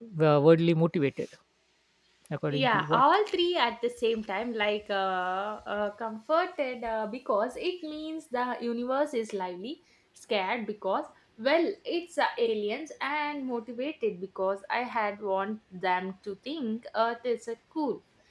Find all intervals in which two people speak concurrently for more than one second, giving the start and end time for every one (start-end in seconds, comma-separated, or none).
none